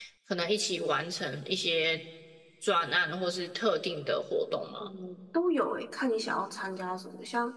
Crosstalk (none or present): none